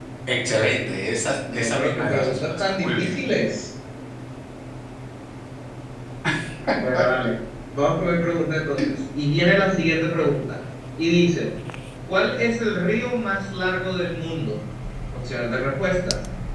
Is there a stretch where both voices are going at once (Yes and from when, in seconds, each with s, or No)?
Yes, from 1.5 s